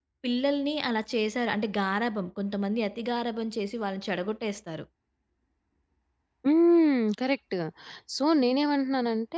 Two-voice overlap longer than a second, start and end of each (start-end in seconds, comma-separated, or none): none